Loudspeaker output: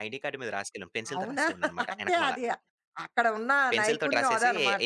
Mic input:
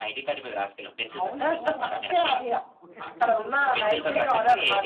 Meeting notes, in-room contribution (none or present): present